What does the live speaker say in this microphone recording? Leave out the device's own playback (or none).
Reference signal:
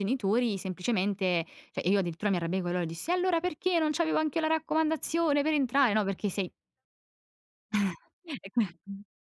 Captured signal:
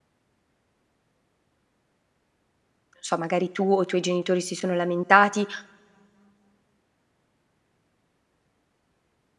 so, magari tu o i tuoi genitori si sono lamentati,